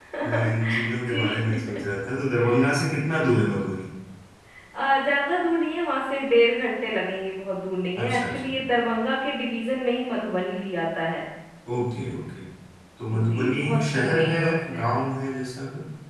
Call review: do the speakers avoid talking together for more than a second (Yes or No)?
No